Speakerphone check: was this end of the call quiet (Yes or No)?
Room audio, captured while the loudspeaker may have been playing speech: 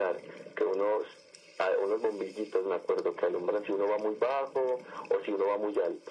Yes